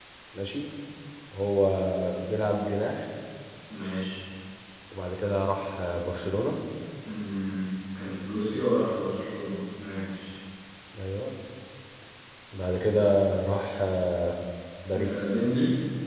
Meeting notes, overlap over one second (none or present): none